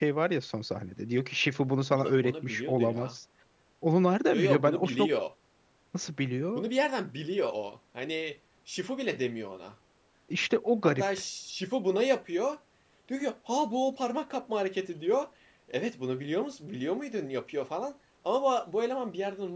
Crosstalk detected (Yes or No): Yes